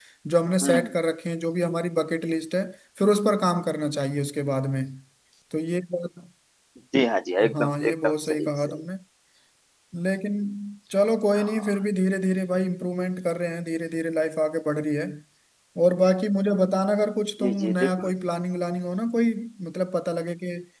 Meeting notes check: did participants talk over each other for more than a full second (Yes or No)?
Yes